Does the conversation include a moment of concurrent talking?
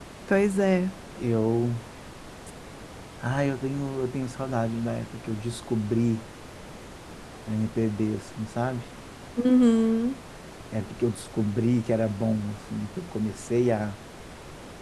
No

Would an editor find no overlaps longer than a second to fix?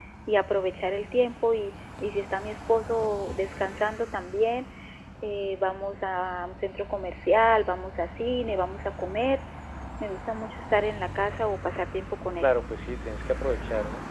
Yes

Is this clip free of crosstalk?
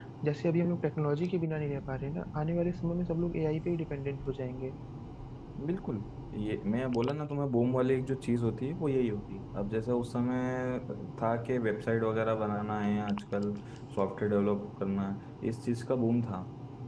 Yes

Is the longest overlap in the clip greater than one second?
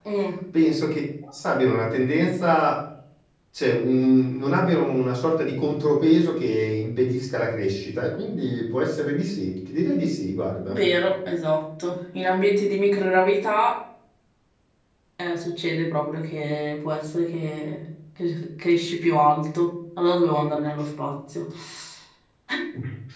No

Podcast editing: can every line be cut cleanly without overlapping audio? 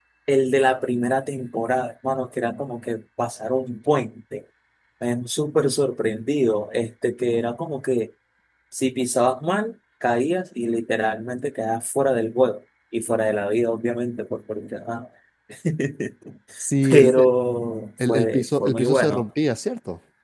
No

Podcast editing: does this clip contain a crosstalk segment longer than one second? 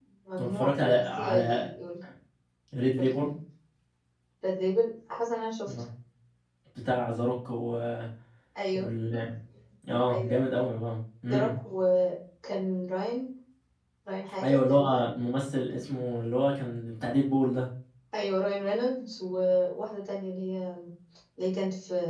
Yes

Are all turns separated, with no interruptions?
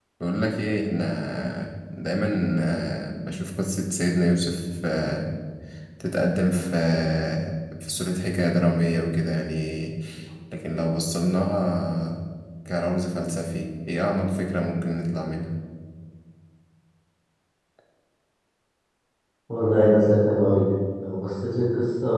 Yes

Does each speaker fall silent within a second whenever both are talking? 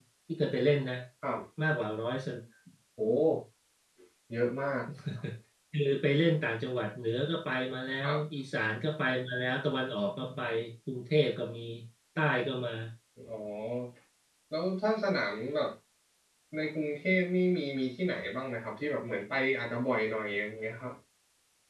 Yes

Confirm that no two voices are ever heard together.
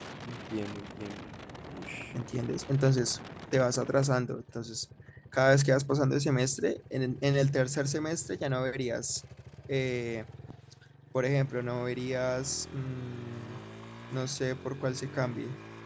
Yes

